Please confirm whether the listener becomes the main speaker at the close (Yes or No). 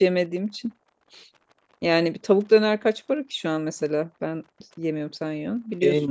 Yes